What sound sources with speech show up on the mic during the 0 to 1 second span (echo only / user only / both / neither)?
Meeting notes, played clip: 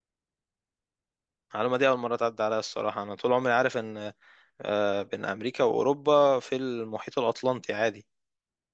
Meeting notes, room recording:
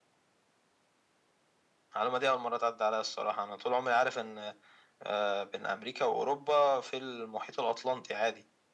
neither